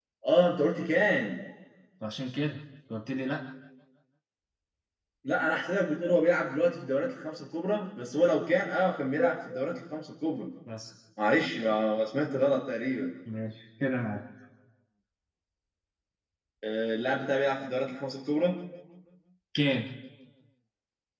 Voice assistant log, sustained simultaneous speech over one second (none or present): none